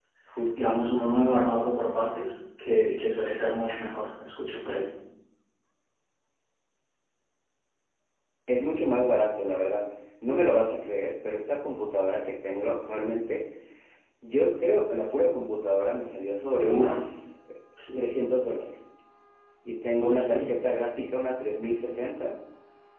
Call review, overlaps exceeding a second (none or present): none